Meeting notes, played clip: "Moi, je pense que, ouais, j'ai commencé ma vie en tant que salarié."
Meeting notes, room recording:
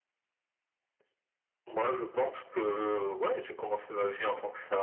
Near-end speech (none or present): none